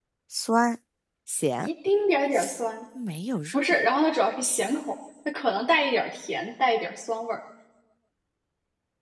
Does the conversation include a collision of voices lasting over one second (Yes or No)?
No